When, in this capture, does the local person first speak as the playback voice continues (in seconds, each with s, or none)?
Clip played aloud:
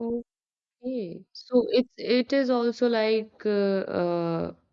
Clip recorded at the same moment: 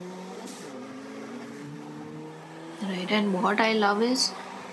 2.8 s